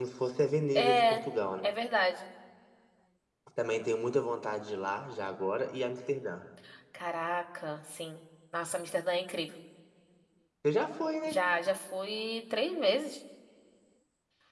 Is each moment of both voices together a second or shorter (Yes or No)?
Yes